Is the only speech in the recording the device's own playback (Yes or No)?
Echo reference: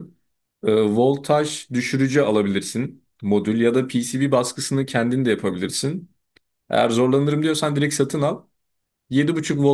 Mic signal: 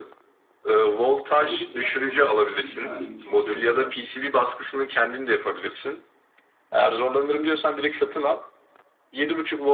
No